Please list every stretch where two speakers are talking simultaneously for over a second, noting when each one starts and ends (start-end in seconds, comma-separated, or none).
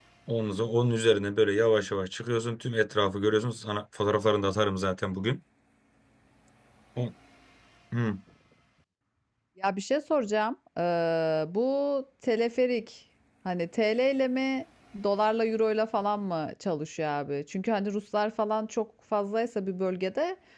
none